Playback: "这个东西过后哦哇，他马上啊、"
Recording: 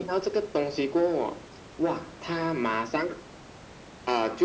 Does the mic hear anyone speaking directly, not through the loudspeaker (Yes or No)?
No